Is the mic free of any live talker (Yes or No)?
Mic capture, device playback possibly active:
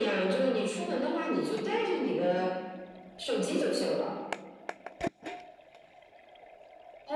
Yes